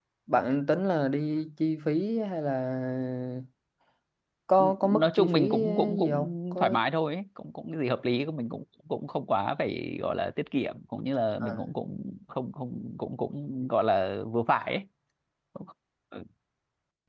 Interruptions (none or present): present